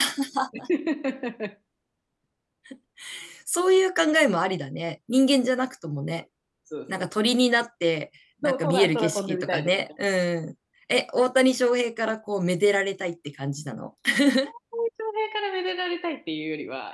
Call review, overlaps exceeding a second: present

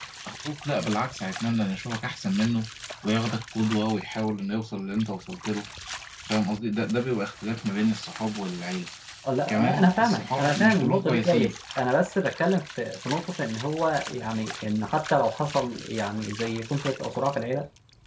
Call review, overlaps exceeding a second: present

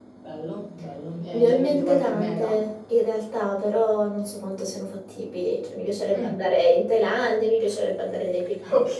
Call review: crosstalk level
present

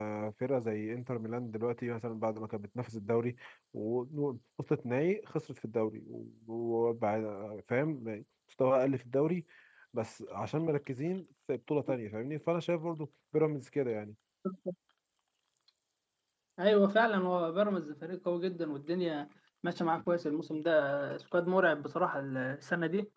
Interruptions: none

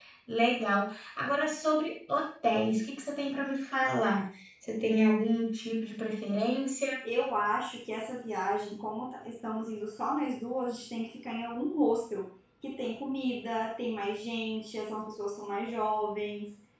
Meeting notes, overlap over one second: none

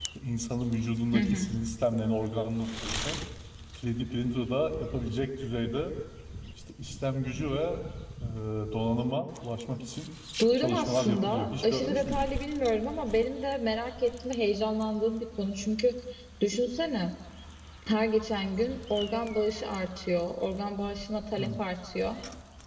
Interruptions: present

